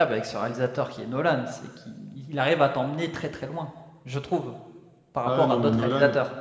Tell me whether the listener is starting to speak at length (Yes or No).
Yes